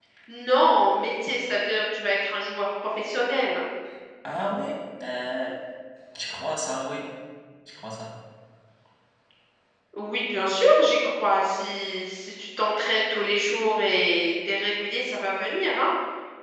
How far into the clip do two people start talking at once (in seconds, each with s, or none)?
none